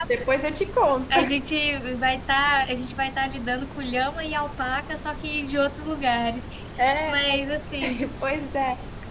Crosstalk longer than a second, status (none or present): none